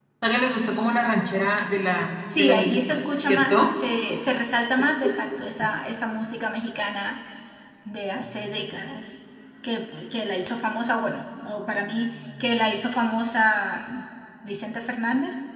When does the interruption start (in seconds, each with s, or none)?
2.3 s